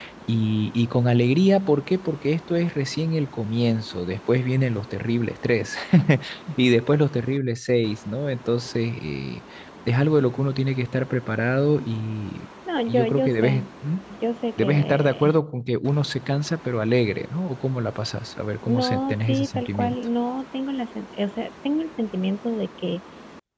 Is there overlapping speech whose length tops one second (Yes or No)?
Yes